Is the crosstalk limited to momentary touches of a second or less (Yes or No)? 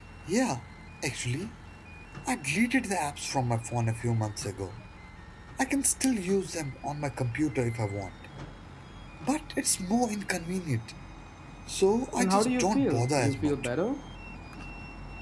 No